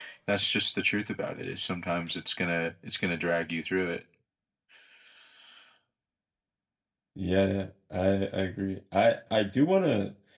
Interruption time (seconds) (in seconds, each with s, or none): none